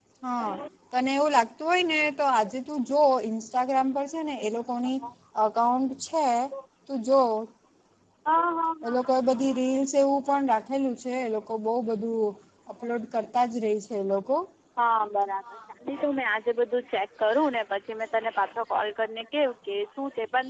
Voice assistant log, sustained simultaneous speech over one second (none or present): none